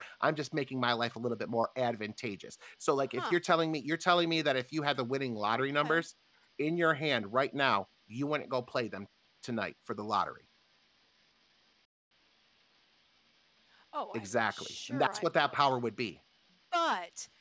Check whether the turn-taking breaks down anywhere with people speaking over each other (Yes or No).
Yes